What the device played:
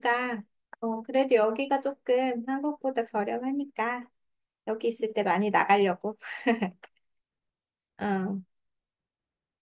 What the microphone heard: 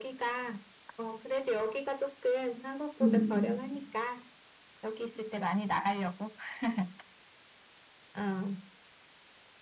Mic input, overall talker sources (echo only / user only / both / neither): both